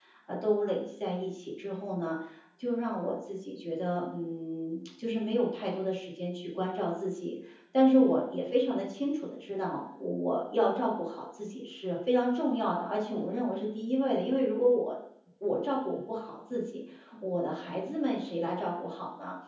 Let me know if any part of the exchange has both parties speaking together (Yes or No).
No